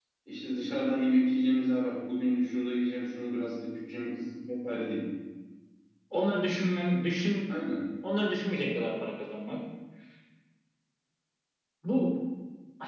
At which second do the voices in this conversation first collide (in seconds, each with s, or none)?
none